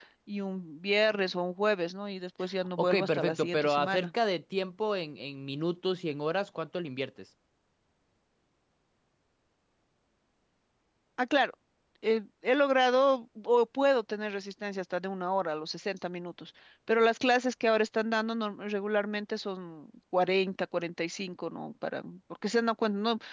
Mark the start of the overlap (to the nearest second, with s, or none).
3 s